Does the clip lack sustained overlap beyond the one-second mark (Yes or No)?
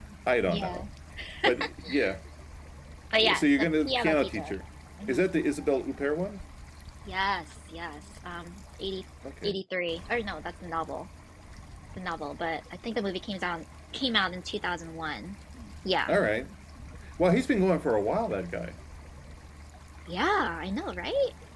No